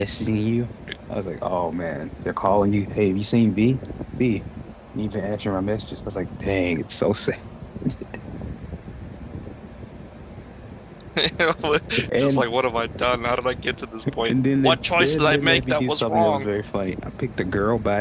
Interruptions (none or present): present